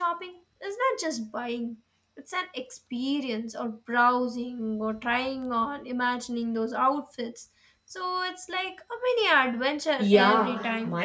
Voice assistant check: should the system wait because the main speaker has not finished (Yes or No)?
No